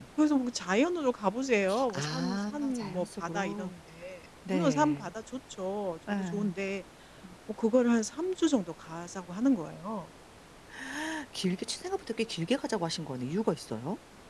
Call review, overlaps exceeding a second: present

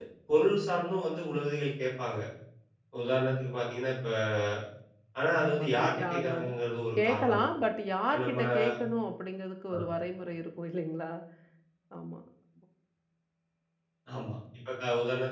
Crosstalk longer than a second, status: present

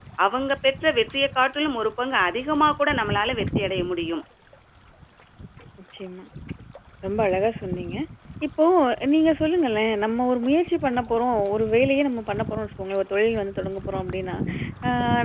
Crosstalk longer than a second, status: none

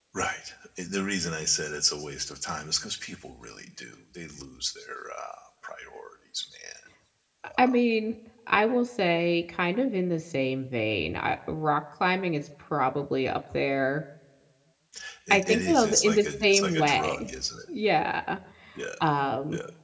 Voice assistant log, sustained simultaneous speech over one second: present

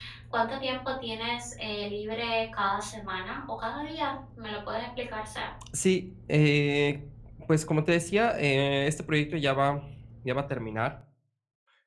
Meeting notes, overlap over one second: none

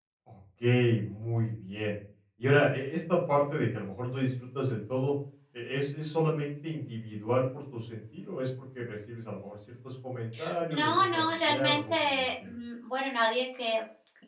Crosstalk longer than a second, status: present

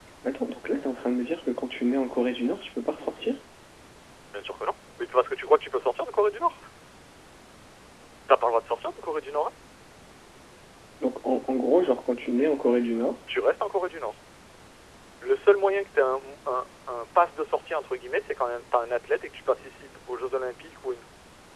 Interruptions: none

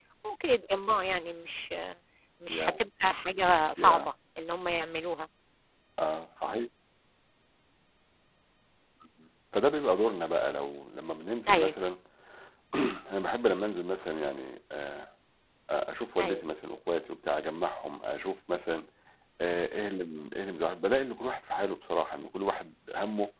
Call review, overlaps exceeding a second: none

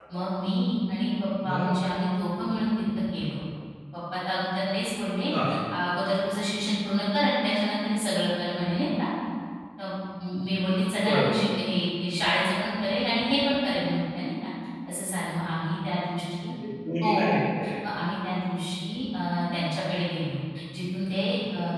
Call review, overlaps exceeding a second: none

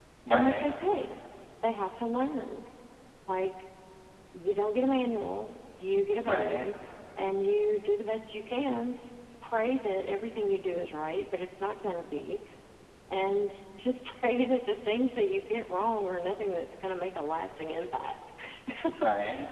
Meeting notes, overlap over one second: none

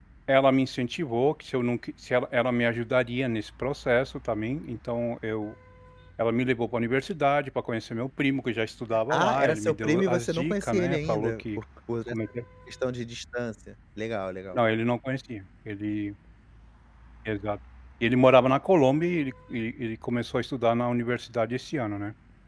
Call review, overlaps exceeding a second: present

